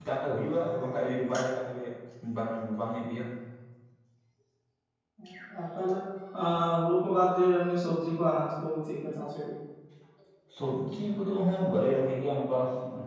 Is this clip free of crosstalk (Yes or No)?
Yes